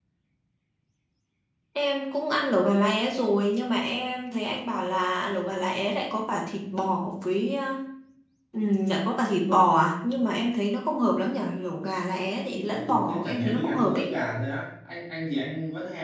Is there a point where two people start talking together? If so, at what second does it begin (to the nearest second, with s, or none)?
13 s